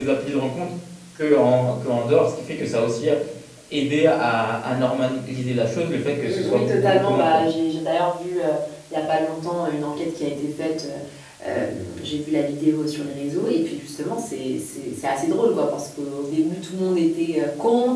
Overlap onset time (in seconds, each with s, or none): 6.2 s